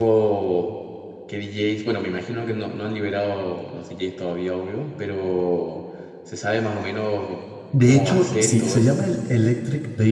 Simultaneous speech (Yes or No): Yes